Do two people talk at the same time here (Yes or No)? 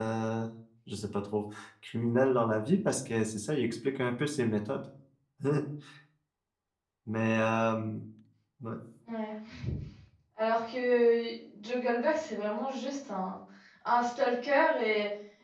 No